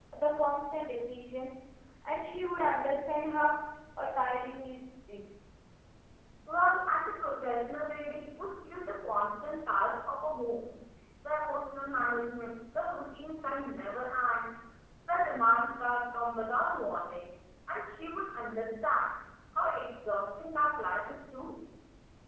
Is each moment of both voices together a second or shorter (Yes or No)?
Yes